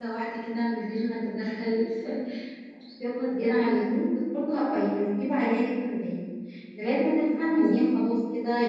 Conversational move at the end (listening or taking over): listening